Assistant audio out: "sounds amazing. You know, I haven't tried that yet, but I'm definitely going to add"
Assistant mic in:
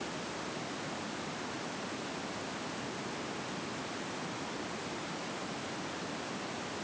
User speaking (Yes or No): No